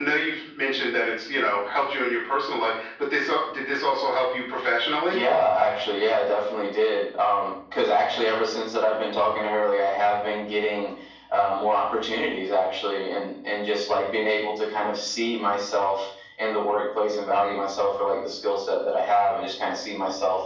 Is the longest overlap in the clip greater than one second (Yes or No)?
No